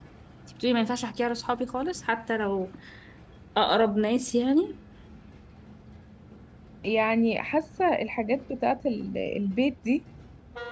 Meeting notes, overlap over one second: none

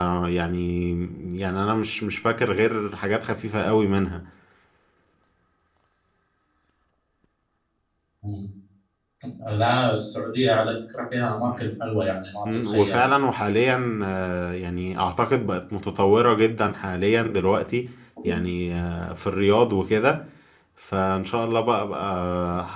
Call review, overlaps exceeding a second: none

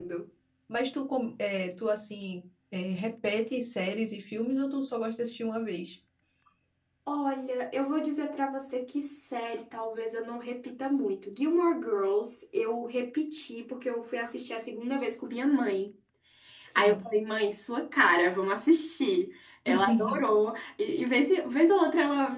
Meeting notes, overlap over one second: none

